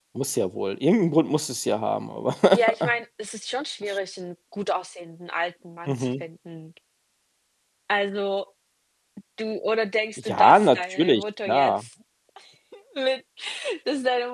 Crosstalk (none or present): present